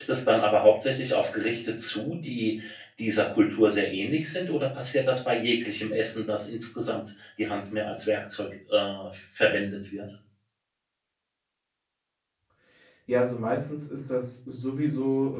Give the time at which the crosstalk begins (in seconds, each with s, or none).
none